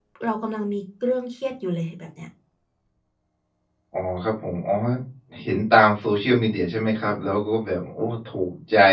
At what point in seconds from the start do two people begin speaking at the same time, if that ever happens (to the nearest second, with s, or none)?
none